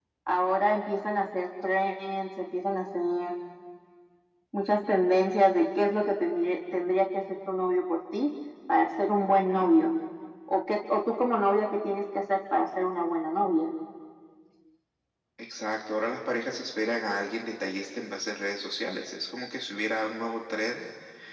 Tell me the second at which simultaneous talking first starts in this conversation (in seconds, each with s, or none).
none